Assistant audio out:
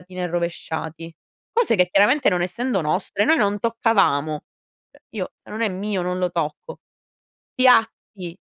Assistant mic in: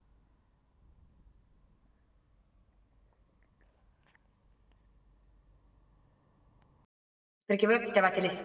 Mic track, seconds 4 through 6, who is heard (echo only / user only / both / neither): neither